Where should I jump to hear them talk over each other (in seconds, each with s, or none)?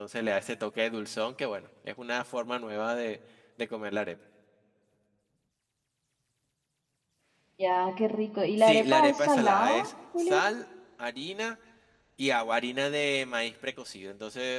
8.6 s